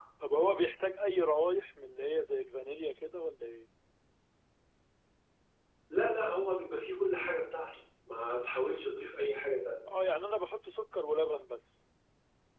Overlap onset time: none

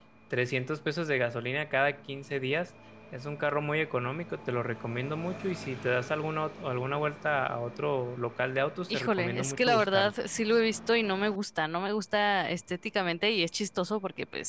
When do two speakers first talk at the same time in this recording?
8.9 s

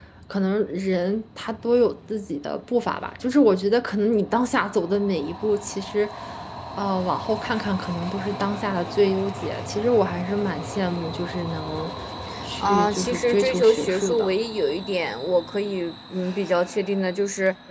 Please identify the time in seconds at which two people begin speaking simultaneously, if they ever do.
12.6 s

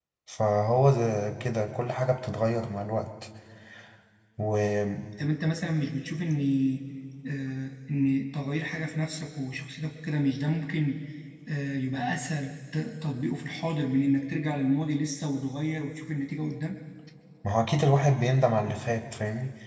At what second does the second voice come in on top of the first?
none

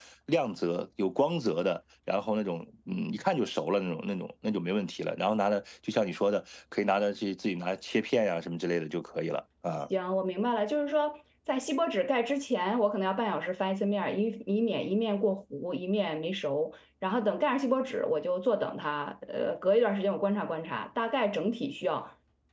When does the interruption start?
none

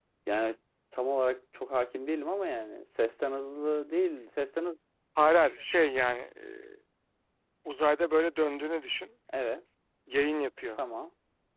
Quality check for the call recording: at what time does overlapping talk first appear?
none

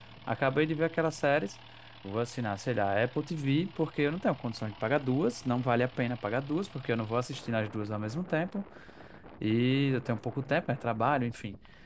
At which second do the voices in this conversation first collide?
none

